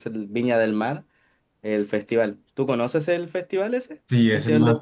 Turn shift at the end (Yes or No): Yes